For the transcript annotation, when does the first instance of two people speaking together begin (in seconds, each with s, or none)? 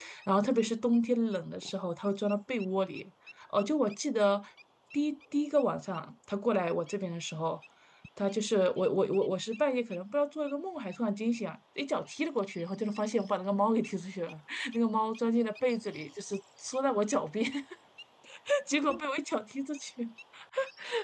none